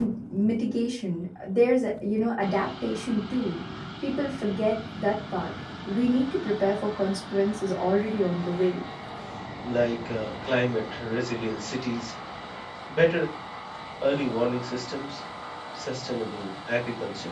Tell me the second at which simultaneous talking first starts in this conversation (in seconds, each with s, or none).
none